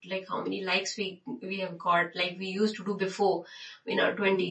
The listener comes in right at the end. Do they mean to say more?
No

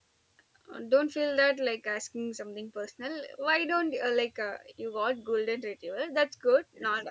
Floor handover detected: No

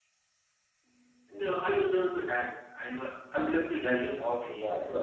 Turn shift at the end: Yes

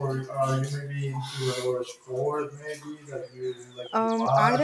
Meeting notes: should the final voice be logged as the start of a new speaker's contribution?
Yes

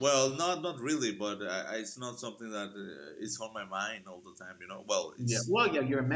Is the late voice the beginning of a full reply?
Yes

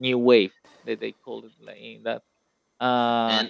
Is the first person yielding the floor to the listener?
No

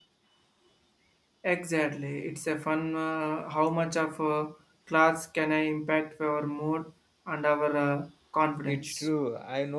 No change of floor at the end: No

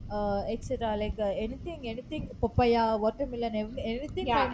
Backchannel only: No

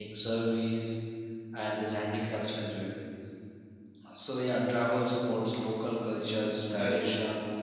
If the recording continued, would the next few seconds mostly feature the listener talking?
No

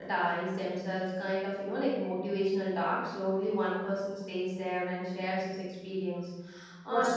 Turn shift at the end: No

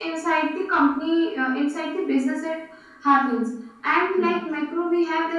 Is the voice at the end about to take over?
No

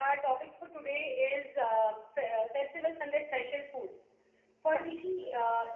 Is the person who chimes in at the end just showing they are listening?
Yes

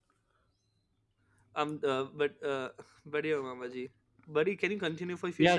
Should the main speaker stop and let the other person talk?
Yes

